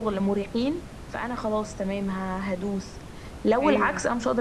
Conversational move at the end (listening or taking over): listening